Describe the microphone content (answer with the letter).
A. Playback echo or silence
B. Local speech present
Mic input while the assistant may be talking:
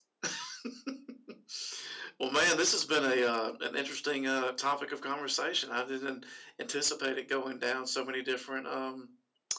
B